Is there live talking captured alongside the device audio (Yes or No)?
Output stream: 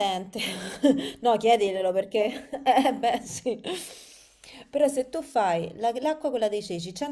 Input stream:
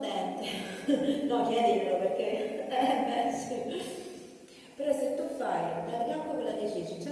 No